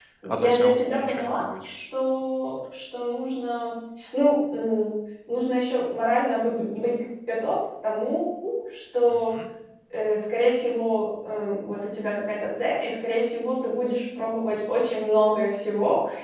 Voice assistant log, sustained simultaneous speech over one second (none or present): present